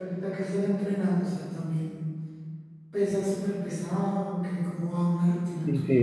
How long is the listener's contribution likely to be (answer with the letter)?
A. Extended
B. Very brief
A